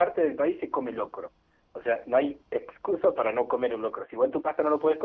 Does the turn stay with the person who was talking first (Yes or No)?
Yes